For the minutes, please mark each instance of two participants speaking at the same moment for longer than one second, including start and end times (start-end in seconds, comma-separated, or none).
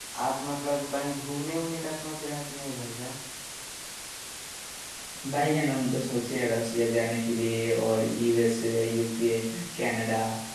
none